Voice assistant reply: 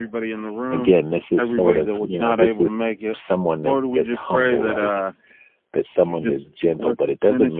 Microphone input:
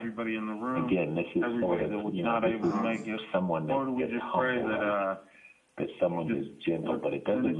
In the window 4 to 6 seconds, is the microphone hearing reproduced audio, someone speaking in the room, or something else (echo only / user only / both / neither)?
echo only